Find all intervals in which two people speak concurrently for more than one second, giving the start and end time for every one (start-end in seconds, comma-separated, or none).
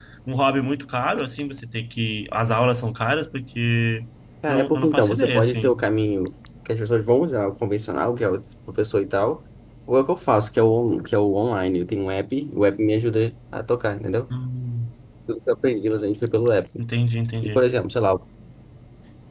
4.5-5.8